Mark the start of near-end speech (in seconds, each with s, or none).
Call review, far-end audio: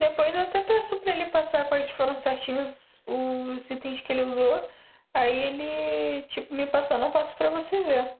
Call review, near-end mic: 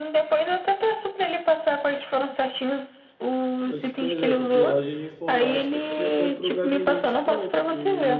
3.6 s